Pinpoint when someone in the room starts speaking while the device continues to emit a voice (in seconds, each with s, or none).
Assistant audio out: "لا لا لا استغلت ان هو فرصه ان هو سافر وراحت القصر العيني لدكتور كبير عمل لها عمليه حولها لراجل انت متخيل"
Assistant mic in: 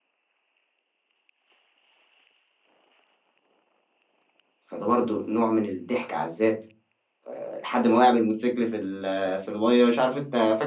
4.6 s